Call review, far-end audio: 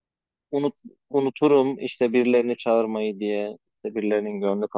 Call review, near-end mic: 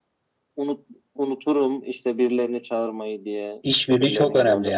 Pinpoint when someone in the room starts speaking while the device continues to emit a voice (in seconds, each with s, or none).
3.6 s